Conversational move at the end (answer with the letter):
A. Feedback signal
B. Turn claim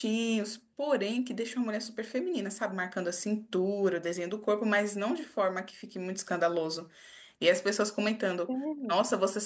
A